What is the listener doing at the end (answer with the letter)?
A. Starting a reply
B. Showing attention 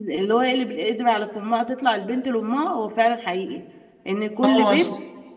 B